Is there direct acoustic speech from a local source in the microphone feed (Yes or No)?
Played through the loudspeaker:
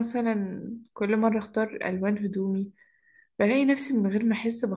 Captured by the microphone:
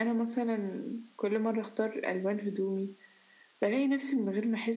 No